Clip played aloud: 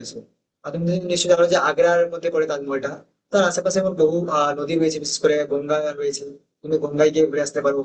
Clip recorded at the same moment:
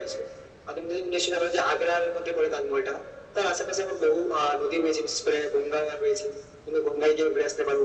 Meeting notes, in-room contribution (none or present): none